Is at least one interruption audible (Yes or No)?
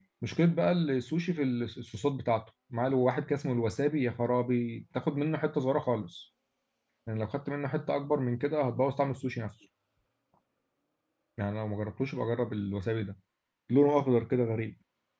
No